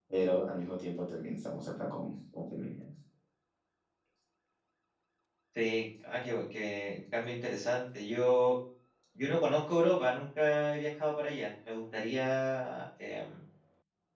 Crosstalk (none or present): none